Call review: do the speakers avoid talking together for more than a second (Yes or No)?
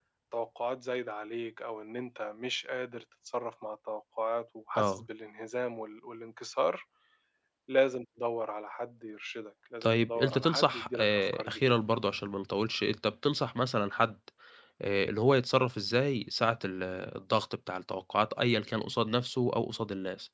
No